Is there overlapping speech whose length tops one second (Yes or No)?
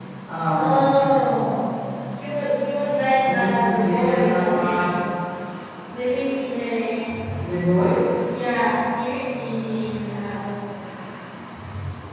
Yes